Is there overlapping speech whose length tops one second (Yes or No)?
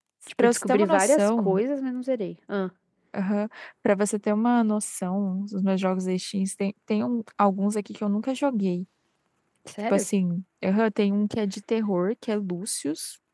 Yes